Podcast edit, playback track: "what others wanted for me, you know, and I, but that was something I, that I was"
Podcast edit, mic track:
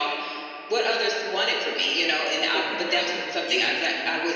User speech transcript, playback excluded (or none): corporate America isn't for you,